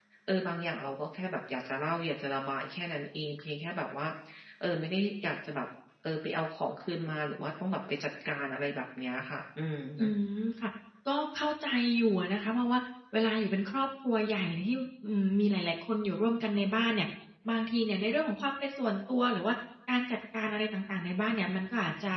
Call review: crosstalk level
none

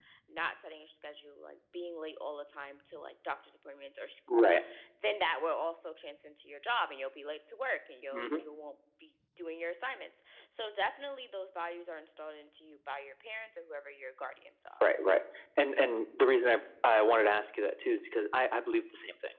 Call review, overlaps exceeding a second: none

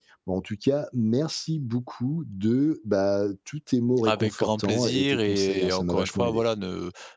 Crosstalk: present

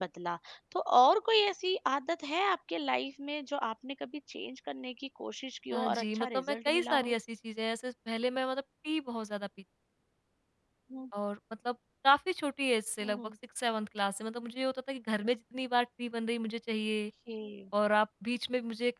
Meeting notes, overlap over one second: present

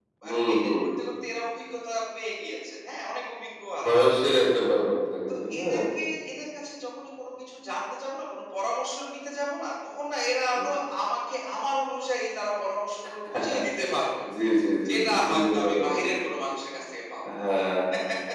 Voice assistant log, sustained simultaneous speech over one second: present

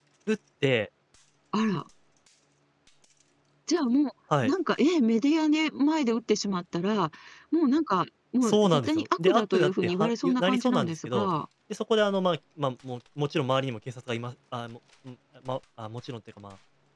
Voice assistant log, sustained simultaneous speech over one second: present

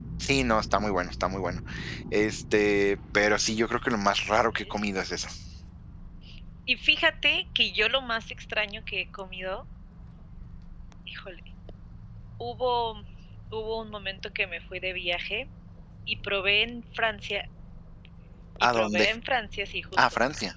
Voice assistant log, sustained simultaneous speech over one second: none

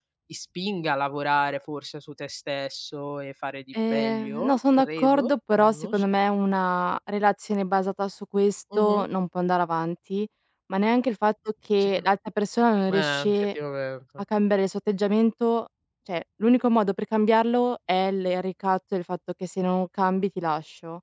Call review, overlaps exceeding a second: present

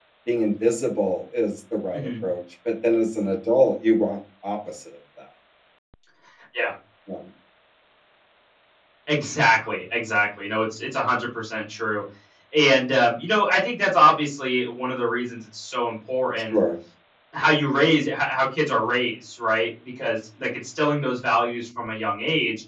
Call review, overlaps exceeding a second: none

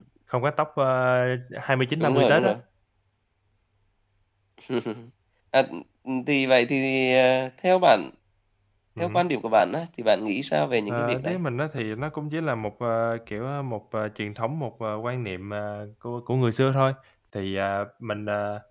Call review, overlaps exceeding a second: none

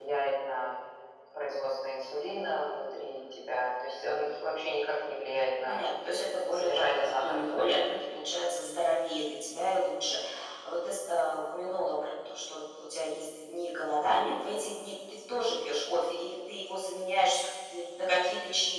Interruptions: present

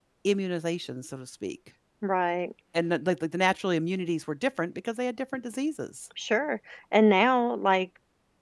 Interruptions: none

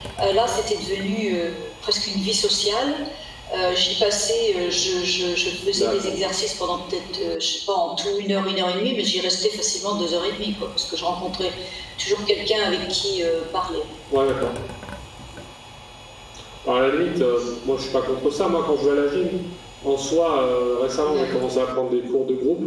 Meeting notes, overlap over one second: none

